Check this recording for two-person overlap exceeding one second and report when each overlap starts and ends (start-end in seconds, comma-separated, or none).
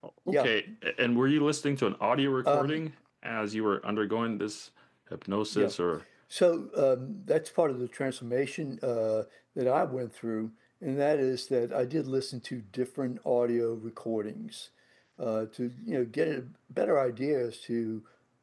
none